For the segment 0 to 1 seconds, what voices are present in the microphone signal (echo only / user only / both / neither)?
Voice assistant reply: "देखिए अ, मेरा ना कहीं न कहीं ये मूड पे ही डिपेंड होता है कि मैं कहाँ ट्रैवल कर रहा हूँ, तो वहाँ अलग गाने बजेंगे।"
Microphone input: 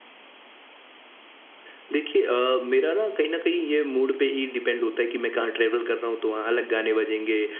neither